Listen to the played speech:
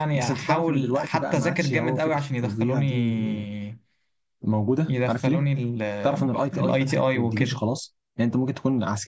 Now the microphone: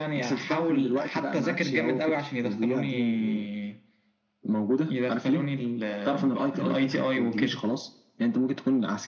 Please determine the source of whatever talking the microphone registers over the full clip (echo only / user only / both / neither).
echo only